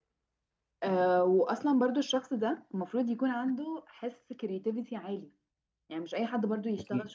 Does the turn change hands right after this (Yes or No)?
No